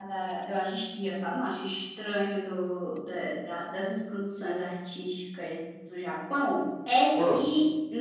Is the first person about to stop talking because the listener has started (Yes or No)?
No